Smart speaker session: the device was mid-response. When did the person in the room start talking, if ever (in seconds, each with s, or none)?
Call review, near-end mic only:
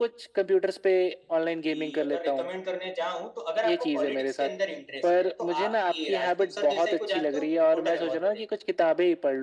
none